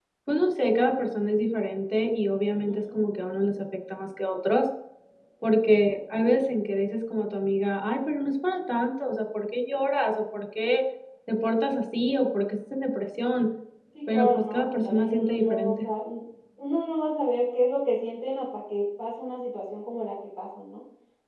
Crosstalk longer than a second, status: present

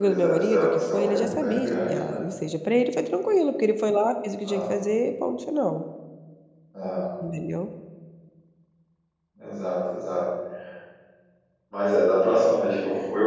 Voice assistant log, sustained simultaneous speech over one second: present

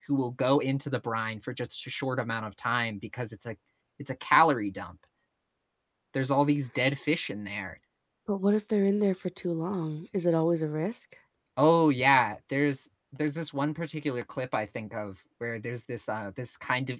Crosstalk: none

